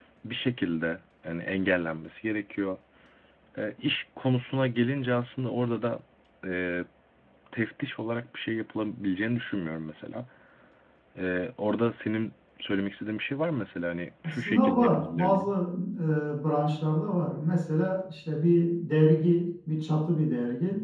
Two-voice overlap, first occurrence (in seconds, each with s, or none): 14.2 s